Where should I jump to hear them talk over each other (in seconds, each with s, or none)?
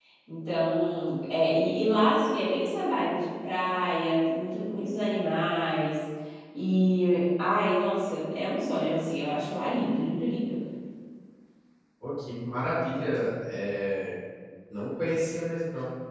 none